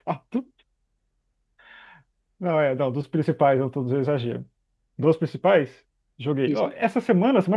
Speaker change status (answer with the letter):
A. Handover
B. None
B